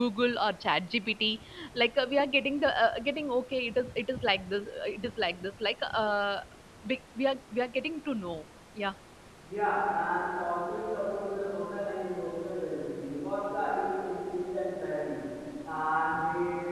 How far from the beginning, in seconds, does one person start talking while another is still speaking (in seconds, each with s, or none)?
none